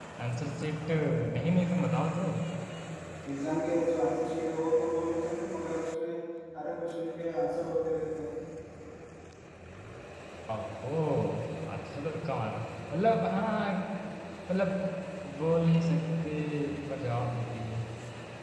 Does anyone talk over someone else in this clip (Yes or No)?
No